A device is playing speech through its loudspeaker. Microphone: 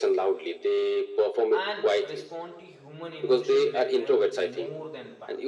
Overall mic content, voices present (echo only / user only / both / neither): both